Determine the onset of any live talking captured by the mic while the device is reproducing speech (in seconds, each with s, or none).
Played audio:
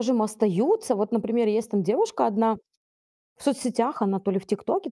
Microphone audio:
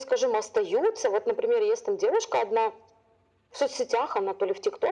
none